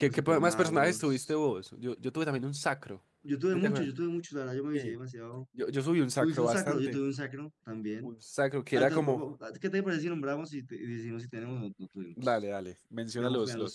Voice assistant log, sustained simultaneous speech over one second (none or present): present